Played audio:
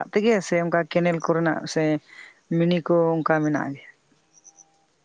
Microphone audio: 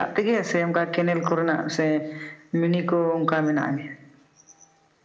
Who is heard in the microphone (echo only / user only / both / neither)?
echo only